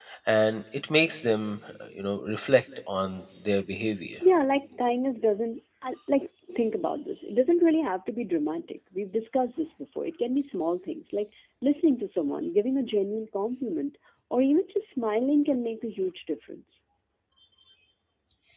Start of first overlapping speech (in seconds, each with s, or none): none